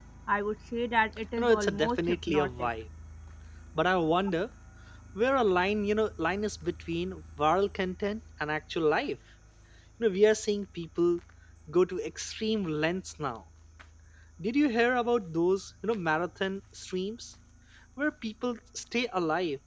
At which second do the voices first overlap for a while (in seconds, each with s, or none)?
1.4 s